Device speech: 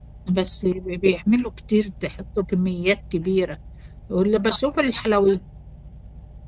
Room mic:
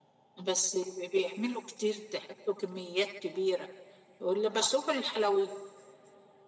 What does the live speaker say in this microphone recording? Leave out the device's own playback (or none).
none